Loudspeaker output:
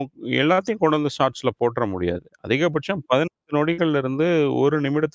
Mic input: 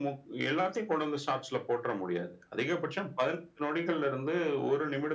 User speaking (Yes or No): No